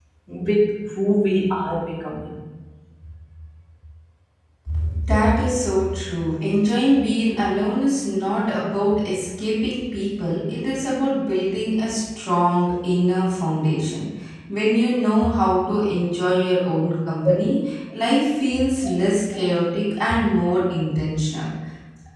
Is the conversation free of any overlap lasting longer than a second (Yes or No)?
Yes